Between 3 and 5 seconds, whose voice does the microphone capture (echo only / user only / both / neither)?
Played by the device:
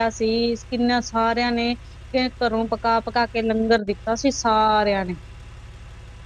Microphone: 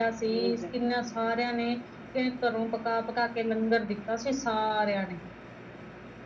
echo only